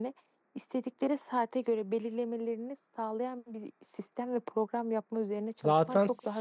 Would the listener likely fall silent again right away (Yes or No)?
No